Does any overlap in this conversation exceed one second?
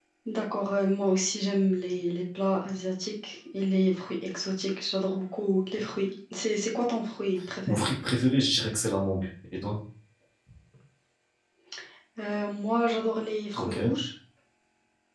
No

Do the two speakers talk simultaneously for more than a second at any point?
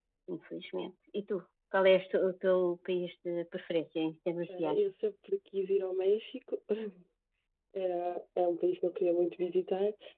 No

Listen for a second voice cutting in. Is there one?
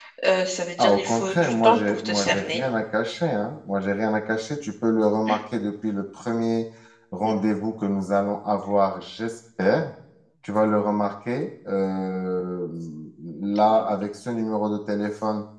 Yes, from 0.8 s

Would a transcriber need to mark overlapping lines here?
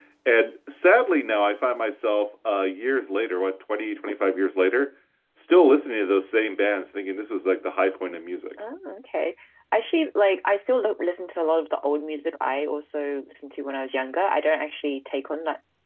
No

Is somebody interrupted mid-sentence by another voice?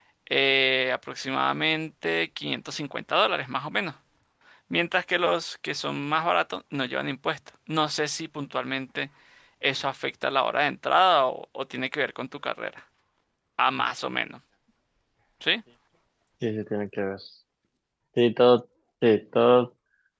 No

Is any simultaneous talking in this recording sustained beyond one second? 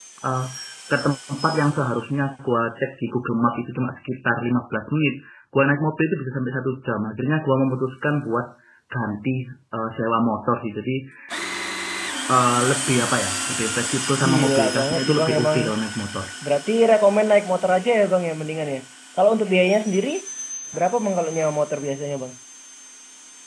Yes, from 14.2 s

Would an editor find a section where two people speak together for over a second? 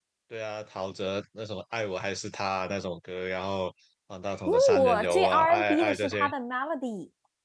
Yes, from 4.5 s

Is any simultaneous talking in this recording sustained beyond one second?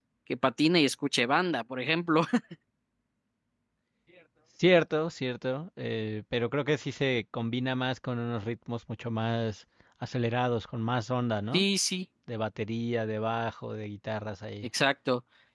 No

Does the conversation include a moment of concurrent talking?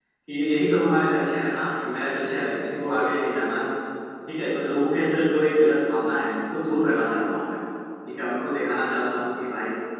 No

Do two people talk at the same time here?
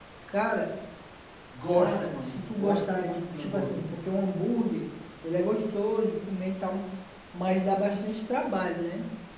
Yes, from 1.7 s

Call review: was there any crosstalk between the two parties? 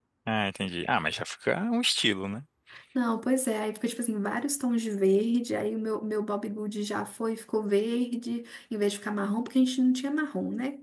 No

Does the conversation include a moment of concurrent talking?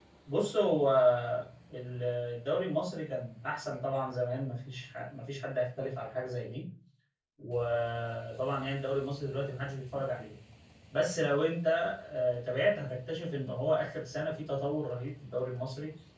No

